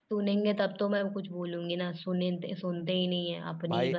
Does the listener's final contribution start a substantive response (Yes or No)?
Yes